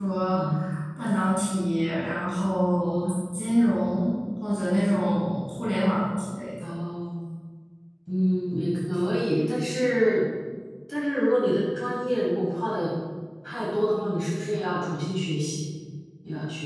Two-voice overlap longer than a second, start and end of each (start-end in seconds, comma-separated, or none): none